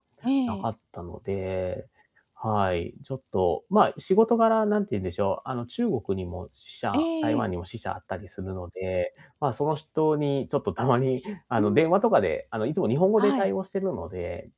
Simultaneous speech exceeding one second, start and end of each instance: none

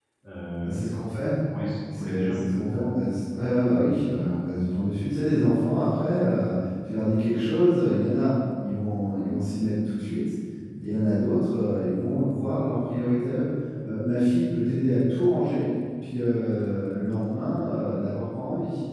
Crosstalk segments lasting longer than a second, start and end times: none

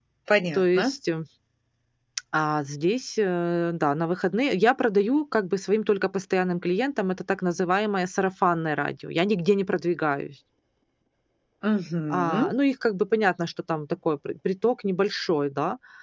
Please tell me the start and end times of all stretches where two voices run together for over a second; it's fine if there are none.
none

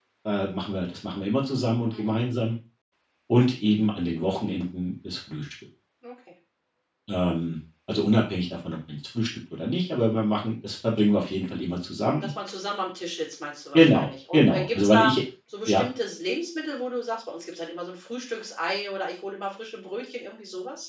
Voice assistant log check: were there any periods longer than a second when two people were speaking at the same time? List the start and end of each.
13.7-15.1

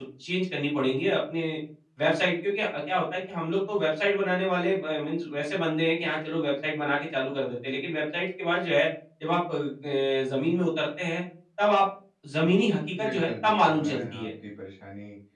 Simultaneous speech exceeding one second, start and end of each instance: 13.0-14.3

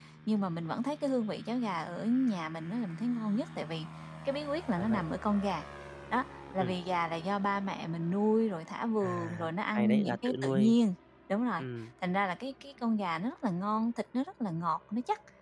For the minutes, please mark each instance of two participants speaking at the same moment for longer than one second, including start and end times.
9.0-10.7

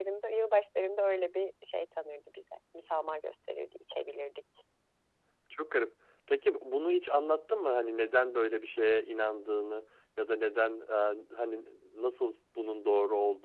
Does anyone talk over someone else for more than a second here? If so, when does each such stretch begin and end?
none

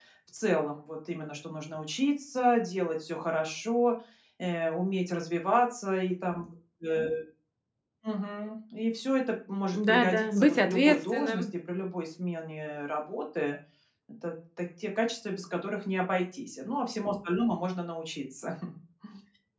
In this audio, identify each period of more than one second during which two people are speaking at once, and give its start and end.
9.7-11.4

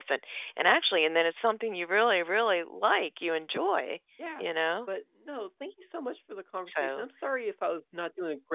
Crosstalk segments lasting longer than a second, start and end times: none

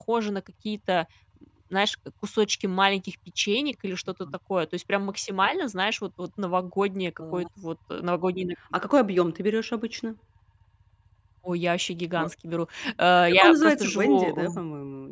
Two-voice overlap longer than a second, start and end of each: 13.3-14.6

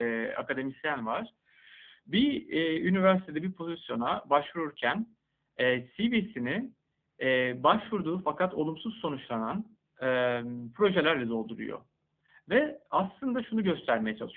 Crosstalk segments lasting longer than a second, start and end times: none

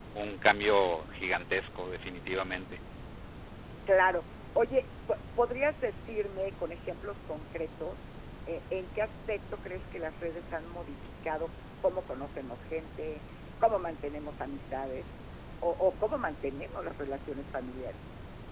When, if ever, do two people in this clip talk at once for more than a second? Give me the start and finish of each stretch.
none

